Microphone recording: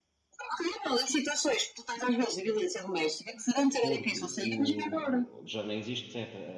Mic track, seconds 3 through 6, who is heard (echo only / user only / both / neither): both